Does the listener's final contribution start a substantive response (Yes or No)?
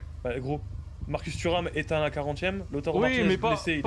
Yes